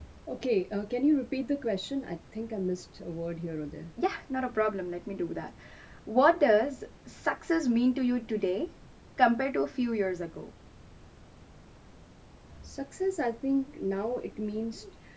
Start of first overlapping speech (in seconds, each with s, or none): none